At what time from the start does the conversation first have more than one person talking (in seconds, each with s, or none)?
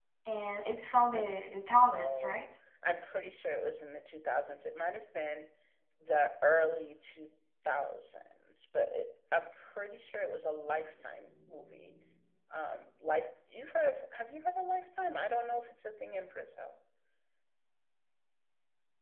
1.1 s